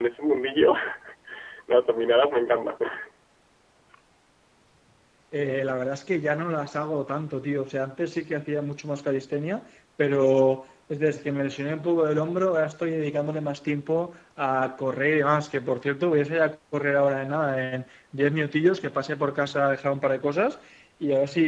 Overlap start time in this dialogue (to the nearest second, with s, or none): none